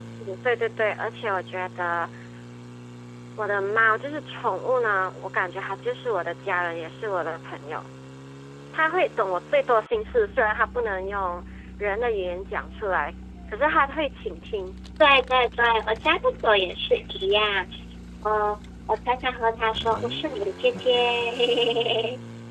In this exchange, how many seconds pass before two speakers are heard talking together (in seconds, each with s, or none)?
none